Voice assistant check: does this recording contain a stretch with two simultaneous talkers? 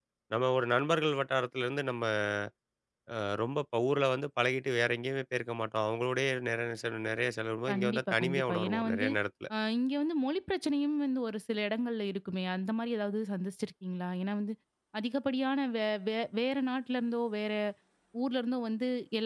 Yes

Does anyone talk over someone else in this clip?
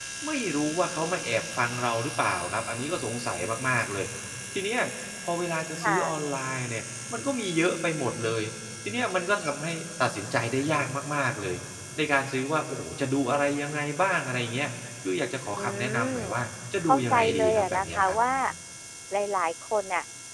Yes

